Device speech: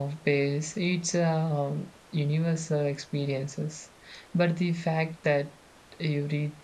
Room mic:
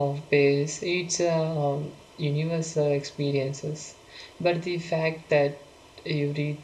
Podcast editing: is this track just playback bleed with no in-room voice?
Yes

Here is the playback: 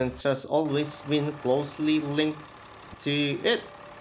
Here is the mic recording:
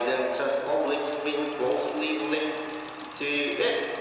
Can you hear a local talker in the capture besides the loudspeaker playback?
No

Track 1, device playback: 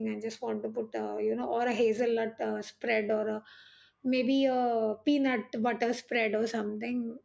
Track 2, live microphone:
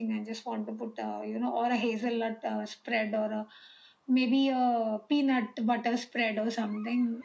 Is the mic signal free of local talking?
Yes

